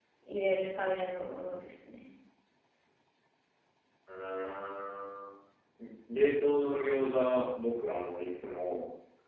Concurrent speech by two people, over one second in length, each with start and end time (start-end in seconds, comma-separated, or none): none